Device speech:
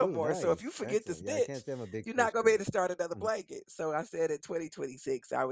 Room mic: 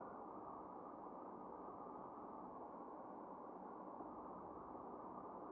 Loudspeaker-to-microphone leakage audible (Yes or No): No